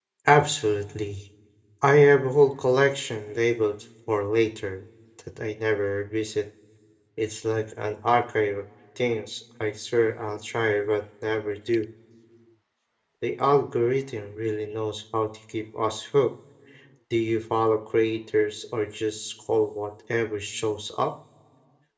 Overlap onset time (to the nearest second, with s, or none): none